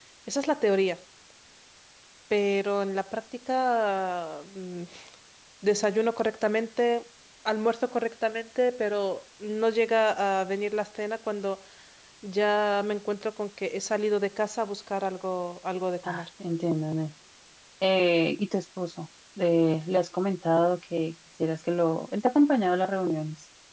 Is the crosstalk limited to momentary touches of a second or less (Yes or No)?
Yes